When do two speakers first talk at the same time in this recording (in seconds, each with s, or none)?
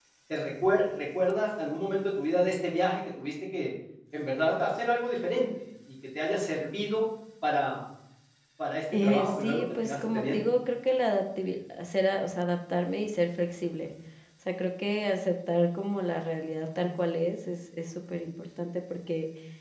8.9 s